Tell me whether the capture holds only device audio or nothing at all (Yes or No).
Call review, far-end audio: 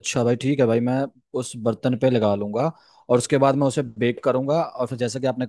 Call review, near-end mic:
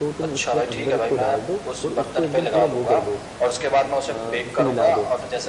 No